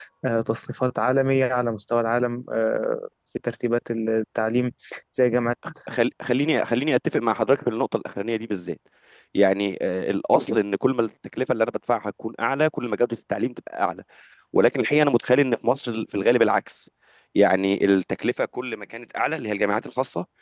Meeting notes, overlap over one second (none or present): none